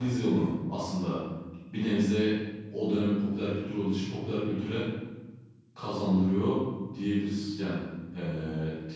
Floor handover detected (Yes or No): No